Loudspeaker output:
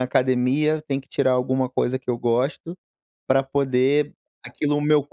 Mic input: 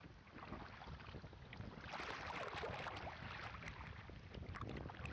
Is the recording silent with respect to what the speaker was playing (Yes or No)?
Yes